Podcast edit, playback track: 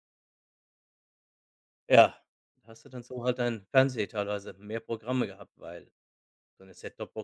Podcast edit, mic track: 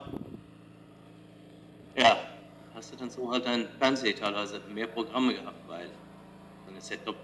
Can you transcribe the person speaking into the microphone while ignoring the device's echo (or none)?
none